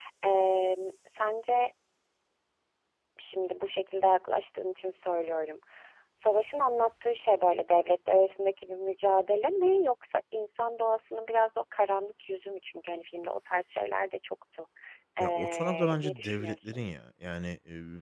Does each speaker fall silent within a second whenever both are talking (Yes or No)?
No